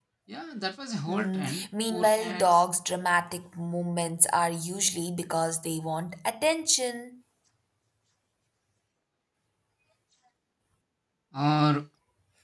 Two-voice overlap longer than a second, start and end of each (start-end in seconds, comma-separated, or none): 1.1-2.6